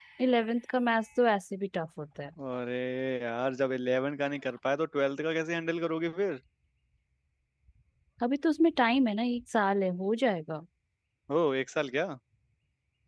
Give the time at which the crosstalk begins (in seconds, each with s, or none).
none